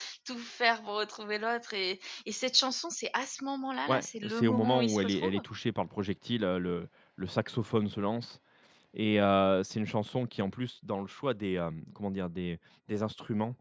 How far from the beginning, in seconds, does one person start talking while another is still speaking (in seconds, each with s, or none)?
3.9 s